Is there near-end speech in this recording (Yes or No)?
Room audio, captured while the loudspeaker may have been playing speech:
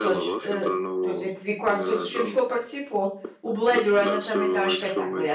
Yes